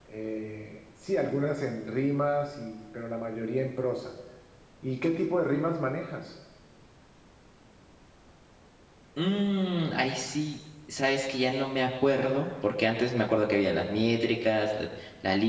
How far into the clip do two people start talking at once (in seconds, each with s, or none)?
none